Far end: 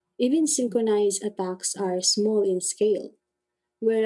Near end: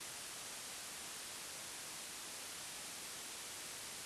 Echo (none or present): none